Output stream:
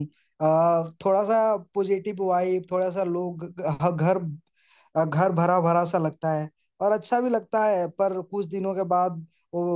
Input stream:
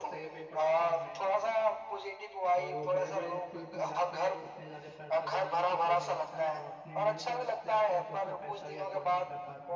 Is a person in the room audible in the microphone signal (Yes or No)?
Yes